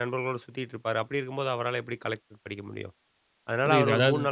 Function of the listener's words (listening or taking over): listening